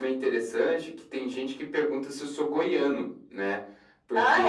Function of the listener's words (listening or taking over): listening